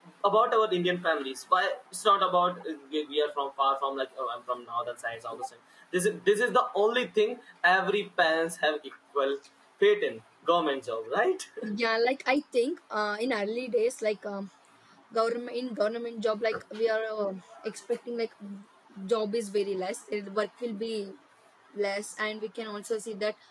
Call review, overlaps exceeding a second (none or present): none